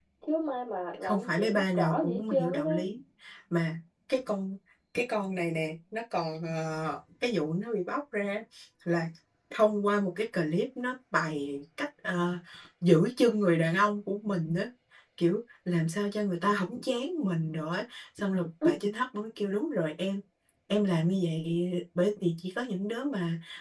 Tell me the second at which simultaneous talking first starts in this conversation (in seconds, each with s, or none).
1.0 s